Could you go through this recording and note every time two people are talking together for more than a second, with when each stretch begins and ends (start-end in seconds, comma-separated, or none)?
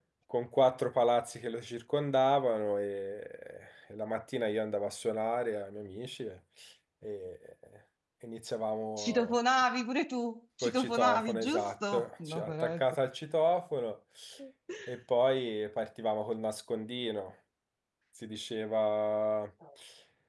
10.6-12.8